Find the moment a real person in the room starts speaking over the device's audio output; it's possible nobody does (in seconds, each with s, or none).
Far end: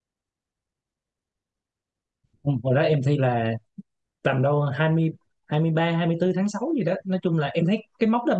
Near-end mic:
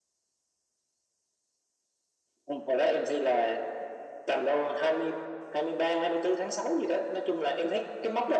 none